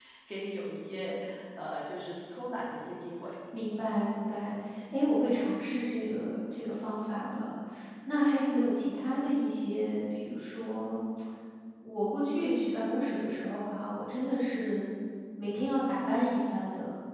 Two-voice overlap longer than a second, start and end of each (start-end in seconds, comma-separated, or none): none